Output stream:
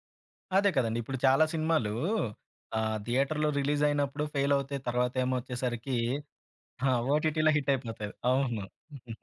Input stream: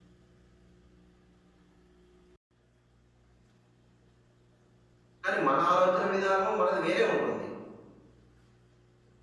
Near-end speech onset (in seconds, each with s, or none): 5.2 s